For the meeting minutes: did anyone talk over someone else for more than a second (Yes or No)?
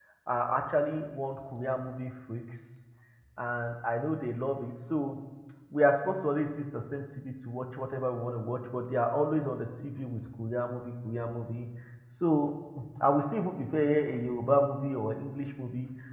No